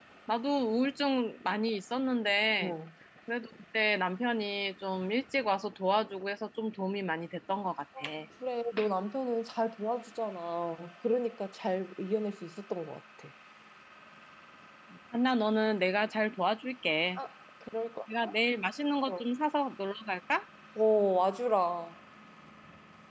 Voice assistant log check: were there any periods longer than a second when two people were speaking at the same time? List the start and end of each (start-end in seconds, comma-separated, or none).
none